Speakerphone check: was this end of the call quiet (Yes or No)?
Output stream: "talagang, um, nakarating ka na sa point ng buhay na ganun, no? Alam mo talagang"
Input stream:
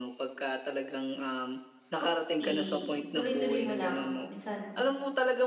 No